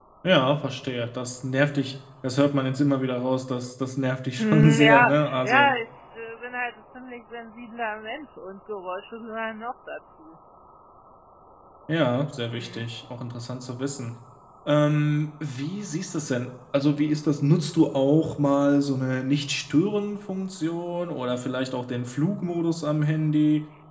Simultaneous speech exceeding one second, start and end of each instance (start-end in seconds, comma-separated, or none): 4.4-5.7